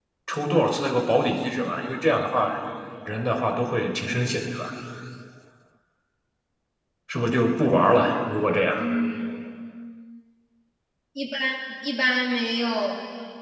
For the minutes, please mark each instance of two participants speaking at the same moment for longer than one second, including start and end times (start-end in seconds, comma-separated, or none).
none